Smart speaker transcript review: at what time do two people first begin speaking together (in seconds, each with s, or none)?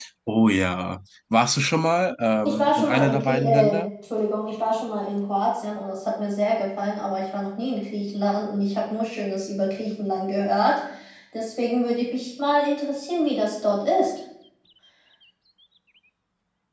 2.4 s